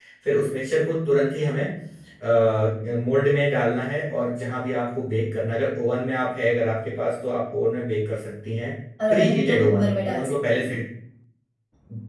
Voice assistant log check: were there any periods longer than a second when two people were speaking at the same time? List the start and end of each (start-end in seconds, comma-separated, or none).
9.1-10.8